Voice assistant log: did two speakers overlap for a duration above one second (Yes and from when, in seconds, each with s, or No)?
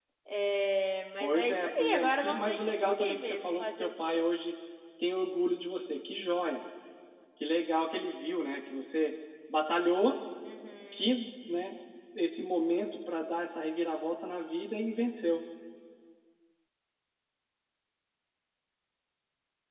Yes, from 1.2 s